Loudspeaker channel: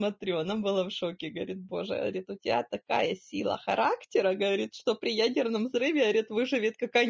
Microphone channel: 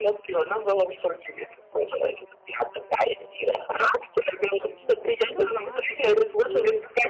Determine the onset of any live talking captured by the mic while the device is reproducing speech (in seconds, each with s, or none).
4.8 s